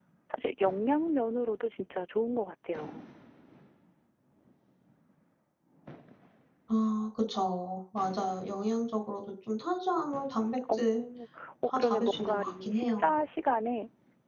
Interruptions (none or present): present